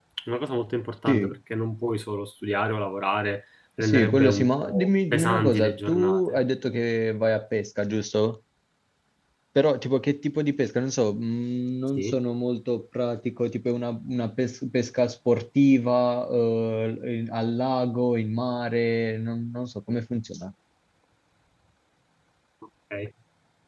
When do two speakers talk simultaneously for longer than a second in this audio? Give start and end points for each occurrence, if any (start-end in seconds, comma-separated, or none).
3.8-6.4